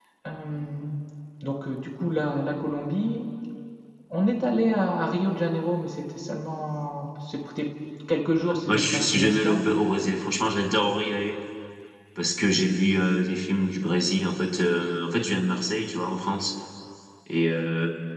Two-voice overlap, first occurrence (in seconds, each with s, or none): 8.4 s